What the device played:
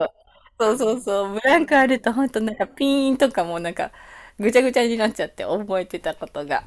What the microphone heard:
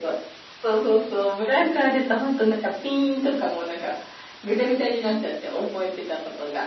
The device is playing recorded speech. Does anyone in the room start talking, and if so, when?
none

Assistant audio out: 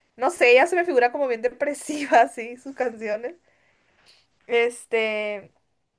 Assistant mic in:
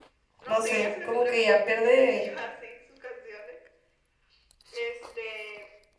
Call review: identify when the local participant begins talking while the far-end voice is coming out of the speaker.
0.5 s

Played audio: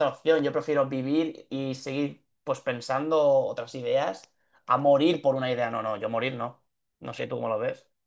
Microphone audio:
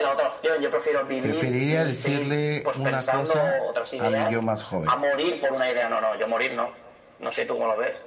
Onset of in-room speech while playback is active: 1.2 s

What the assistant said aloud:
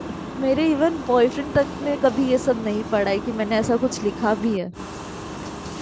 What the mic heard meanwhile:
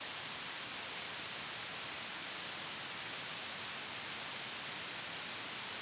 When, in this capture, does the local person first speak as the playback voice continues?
none

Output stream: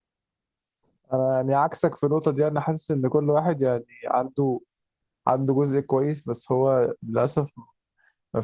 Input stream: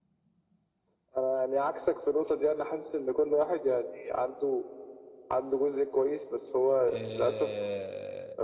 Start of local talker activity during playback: 6.9 s

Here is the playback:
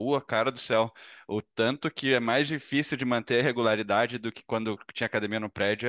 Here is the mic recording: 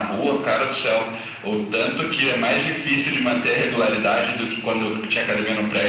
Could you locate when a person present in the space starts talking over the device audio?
none

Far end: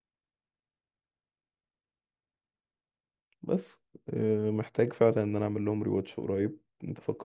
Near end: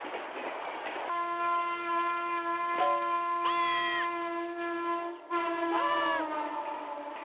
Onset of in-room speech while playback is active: none

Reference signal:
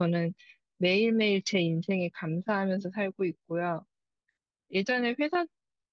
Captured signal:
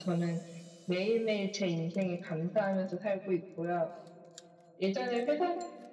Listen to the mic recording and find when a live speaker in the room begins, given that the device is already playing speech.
none

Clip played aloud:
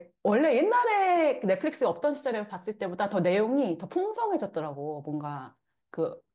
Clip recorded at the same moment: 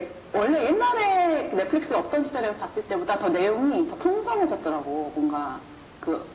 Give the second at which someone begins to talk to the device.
none

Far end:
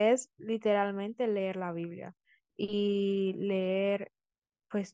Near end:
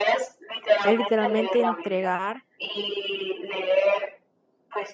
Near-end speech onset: 0.8 s

